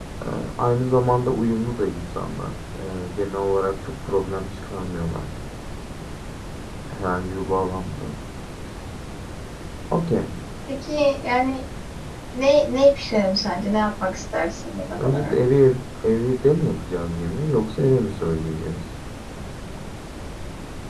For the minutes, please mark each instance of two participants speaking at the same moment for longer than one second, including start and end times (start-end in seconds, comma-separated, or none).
none